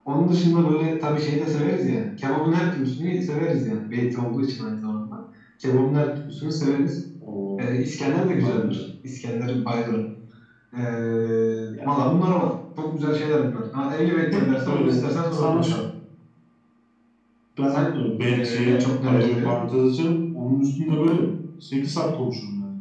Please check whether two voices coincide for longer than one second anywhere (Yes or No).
Yes